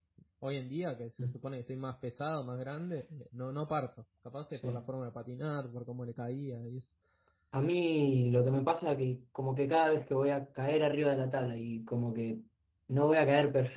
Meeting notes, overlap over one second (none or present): none